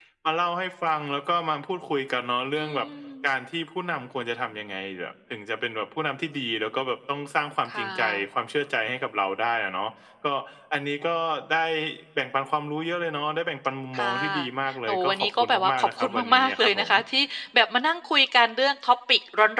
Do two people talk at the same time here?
Yes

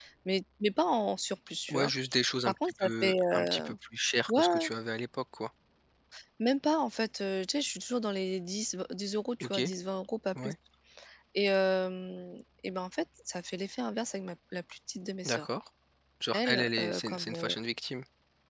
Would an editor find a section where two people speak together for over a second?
Yes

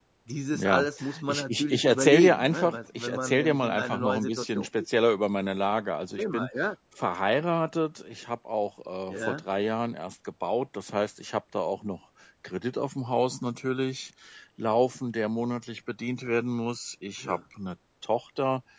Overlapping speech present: Yes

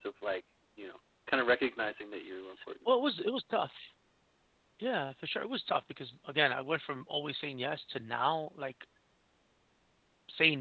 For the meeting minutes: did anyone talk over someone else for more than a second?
No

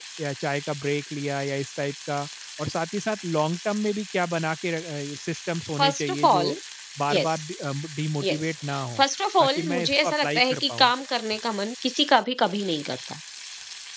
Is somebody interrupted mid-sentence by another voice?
Yes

